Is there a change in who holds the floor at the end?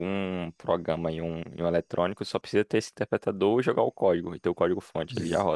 Yes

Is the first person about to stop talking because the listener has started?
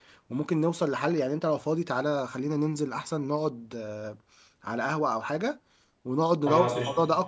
No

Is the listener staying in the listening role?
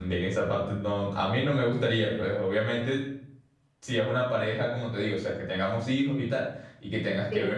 Yes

